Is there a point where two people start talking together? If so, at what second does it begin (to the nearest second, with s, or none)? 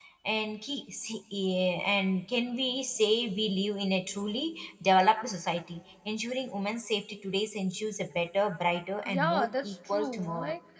9 s